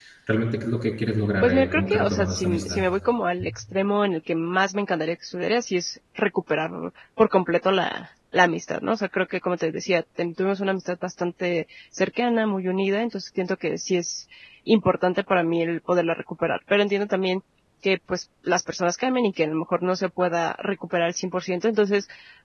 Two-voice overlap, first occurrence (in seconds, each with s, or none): 1.4 s